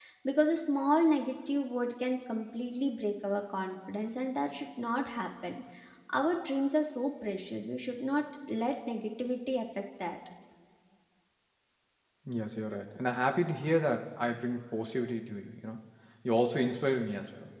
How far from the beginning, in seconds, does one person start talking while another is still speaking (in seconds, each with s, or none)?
none